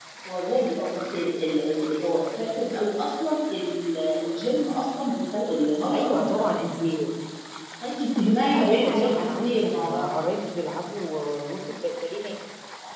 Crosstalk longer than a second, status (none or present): present